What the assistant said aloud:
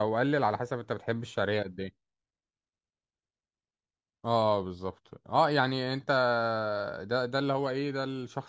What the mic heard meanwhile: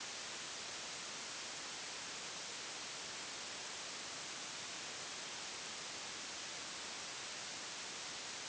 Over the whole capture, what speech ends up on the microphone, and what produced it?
neither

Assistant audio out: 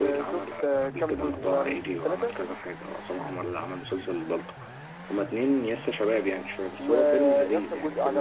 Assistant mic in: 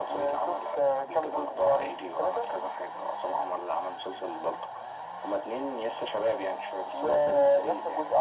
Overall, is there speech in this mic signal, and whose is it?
echo only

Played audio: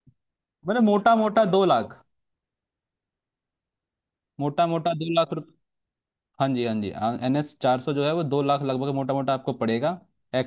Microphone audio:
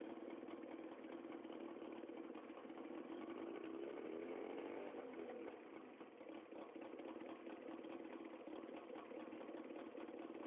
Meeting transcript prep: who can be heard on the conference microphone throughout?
neither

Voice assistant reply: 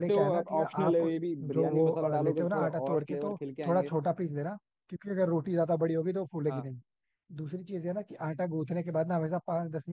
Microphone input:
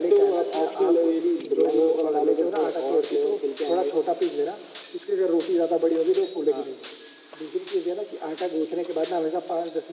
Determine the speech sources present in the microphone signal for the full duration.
echo only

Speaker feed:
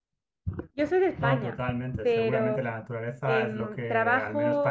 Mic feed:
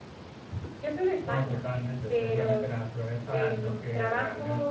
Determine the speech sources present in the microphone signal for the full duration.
echo only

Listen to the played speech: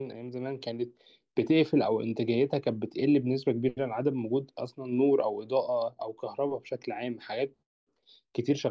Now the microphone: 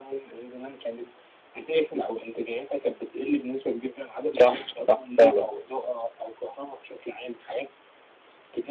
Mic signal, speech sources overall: both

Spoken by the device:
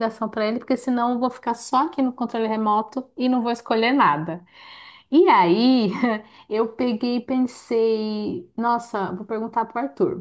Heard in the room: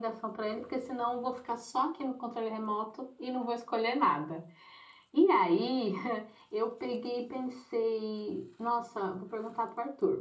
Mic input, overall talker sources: echo only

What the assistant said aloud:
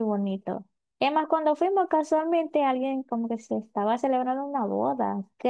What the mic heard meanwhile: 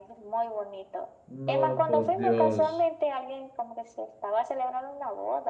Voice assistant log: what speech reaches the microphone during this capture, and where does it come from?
both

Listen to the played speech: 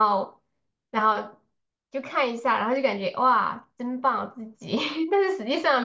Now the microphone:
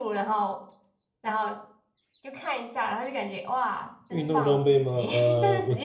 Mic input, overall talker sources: both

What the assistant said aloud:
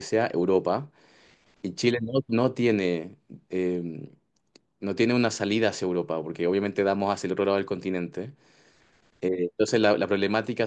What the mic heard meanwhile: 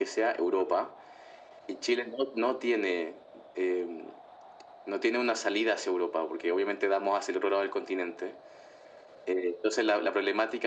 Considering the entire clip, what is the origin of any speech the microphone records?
echo only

